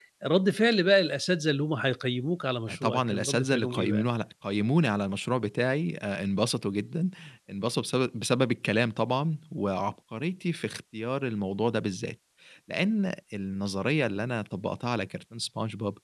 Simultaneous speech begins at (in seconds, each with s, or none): 2.7 s